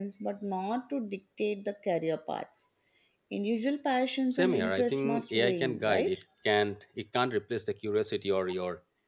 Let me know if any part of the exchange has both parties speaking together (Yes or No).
Yes